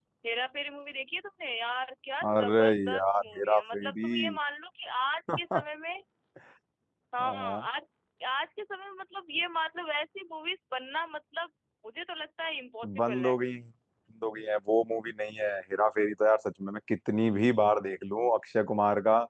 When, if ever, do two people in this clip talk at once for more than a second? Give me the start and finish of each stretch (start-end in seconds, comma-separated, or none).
2.4-4.1